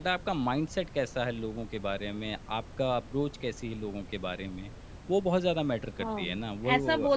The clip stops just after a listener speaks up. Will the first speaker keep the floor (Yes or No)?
No